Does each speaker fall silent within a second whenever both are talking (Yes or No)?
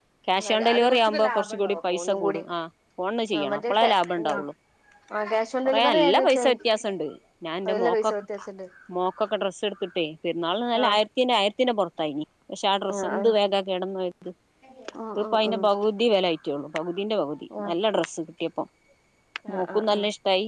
No